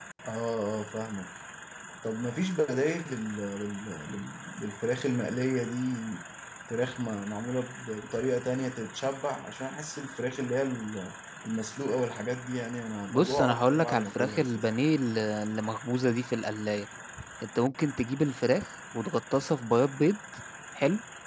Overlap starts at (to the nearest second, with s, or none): 13 s